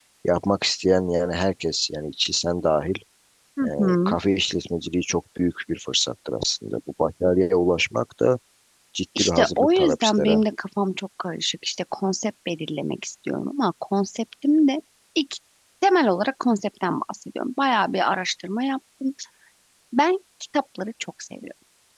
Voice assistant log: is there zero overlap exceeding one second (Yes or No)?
No